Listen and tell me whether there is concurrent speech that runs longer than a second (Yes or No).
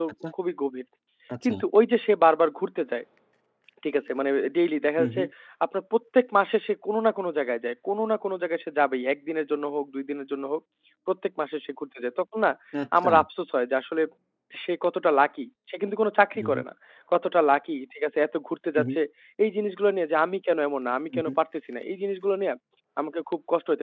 No